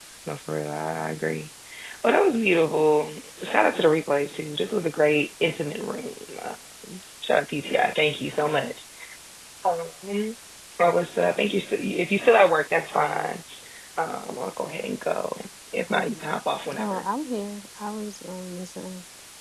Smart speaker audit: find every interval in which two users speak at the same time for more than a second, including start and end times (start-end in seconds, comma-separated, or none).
none